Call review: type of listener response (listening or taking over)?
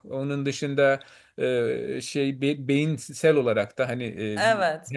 listening